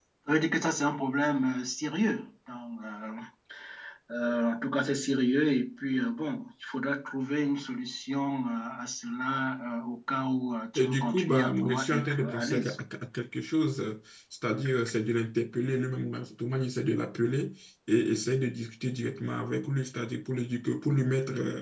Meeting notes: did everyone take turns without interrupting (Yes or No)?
No